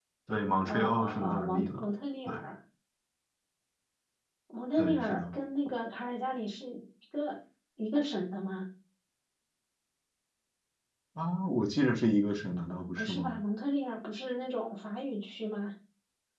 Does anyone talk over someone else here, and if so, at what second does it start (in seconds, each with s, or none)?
0.6 s